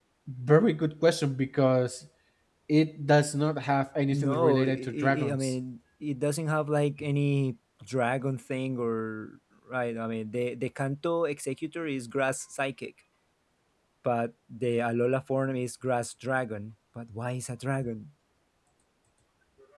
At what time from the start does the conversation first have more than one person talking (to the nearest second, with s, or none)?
4 s